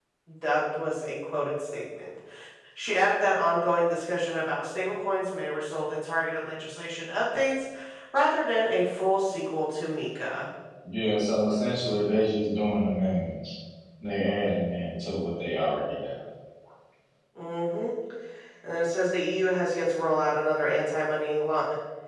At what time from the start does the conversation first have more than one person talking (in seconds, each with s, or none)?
none